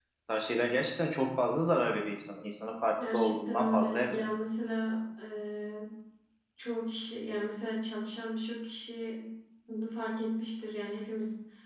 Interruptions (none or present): present